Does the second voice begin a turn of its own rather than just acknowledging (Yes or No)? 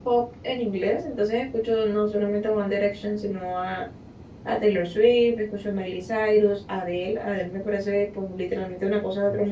Yes